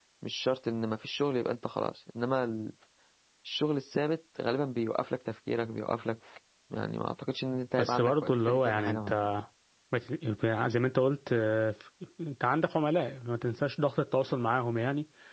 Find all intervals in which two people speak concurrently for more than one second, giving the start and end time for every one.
7.8-9.1

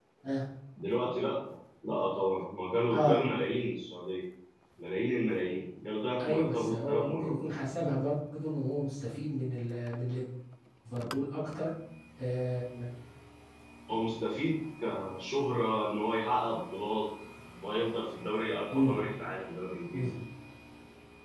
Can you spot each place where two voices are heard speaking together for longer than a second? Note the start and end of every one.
6.2-7.5

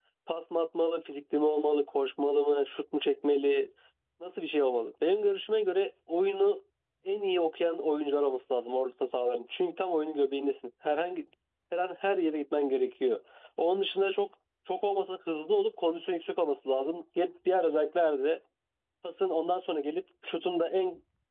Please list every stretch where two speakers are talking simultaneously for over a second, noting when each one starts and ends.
none

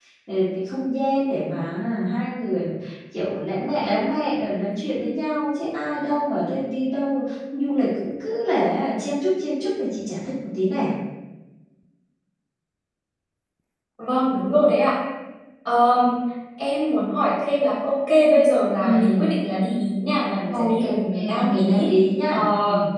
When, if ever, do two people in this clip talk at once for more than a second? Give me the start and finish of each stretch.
20.6-21.9

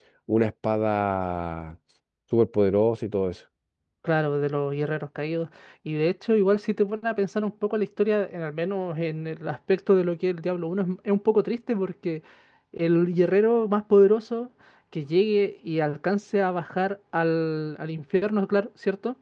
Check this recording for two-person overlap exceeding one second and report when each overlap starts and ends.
none

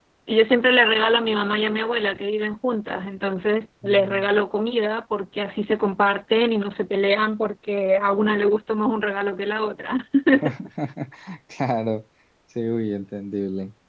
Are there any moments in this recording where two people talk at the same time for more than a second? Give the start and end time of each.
none

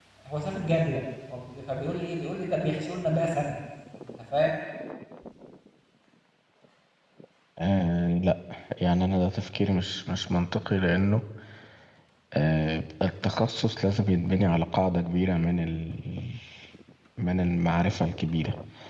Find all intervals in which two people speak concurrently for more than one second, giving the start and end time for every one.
none

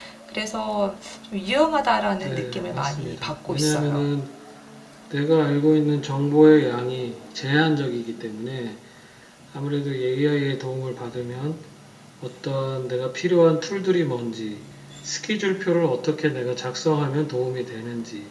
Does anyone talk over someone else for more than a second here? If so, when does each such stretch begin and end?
2.2-4.1

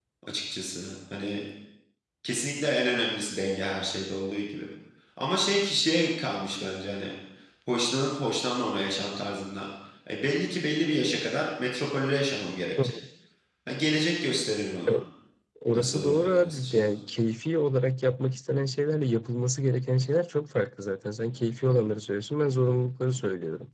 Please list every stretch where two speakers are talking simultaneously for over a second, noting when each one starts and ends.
15.7-17.0

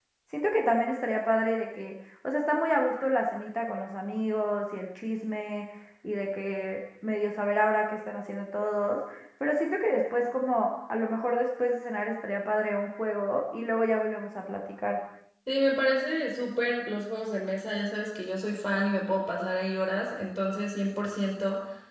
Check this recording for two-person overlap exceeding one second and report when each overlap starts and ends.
none

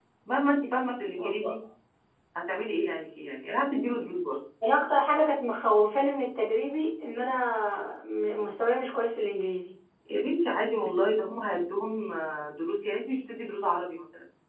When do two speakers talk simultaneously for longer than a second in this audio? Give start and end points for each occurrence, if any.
none

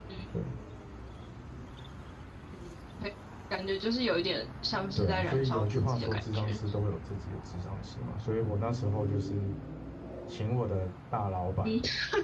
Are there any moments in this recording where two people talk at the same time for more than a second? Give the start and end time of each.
5.0-6.6

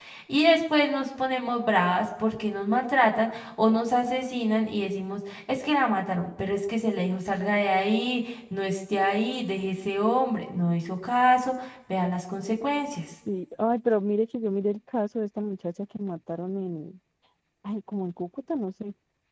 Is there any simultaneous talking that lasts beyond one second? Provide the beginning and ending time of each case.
none

